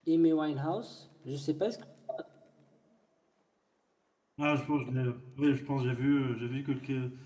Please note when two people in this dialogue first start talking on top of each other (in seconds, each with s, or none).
none